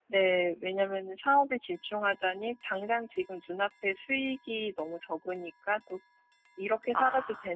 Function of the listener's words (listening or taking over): listening